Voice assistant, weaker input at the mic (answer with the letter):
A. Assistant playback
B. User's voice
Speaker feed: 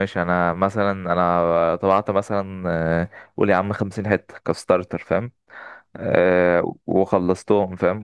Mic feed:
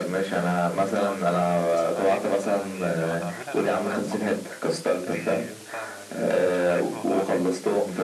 B